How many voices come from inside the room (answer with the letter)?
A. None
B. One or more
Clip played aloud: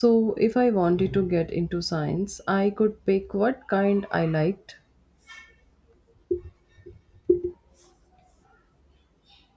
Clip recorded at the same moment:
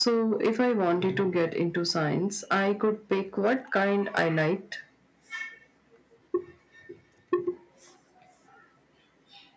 A